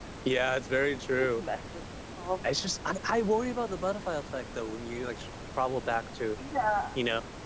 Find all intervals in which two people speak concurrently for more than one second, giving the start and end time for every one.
none

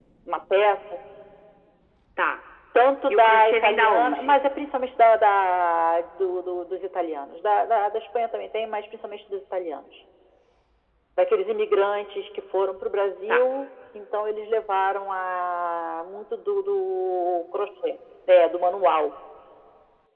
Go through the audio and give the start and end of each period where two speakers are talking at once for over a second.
3.1-4.4

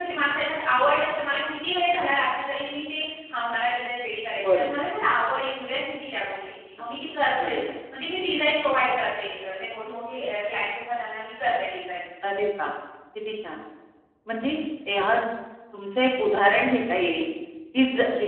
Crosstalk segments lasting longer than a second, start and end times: none

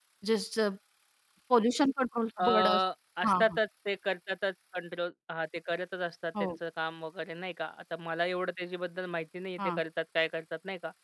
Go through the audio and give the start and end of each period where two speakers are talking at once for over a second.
none

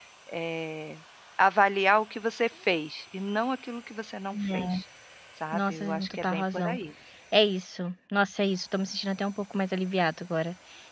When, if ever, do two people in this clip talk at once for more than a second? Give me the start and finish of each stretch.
5.5-6.8

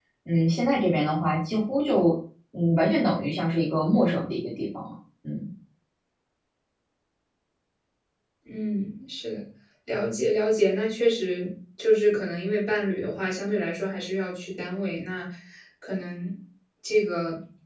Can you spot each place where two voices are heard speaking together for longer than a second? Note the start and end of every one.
none

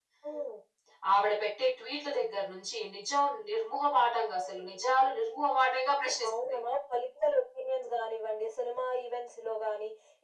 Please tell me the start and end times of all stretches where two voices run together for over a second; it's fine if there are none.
none

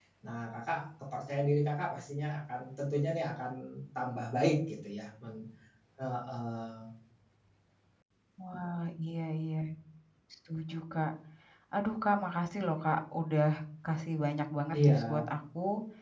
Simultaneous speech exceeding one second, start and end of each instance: none

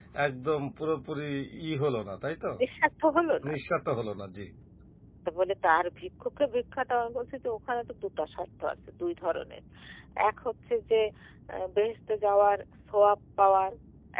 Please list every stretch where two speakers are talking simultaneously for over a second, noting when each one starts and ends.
none

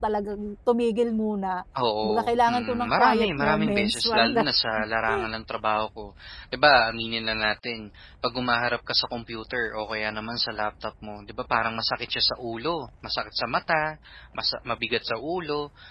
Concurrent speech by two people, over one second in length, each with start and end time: 2.0-4.4

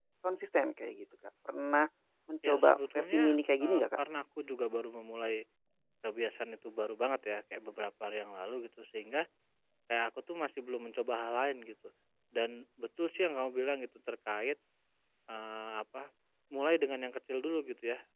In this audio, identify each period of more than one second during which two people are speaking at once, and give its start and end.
2.4-4.0

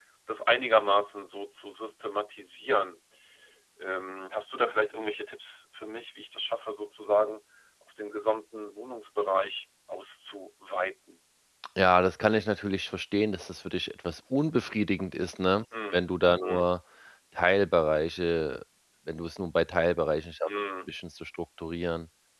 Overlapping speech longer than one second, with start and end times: none

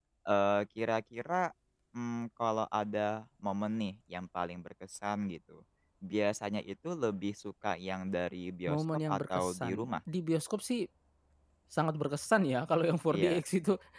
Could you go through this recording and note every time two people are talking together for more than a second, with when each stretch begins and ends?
8.7-9.9

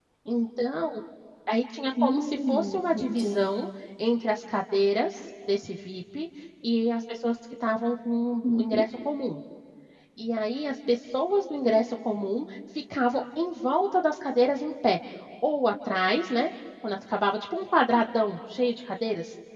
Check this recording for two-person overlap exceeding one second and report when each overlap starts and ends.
2.0-3.4

